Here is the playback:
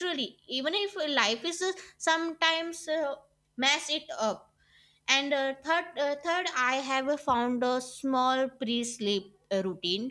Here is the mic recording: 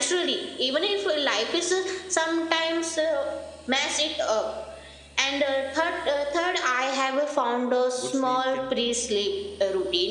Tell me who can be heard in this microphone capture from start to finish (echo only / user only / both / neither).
both